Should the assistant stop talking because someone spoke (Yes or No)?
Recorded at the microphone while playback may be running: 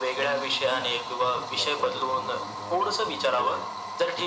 Yes